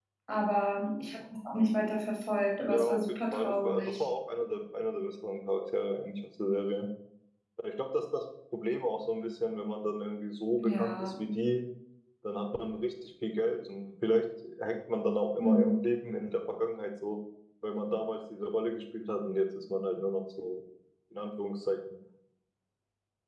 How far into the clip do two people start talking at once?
2.7 s

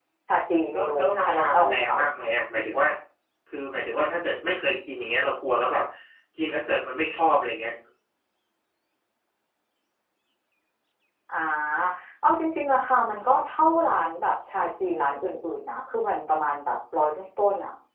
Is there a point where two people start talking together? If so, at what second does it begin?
0.7 s

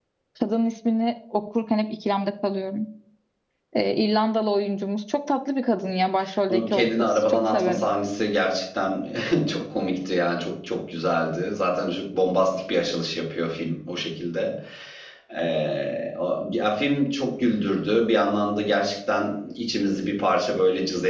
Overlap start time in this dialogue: 6.5 s

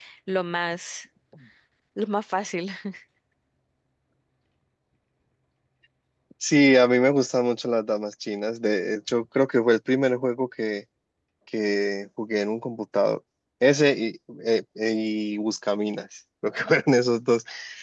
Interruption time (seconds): none

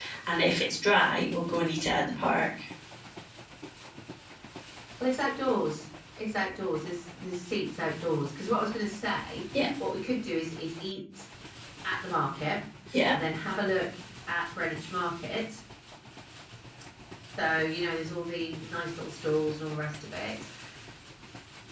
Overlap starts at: none

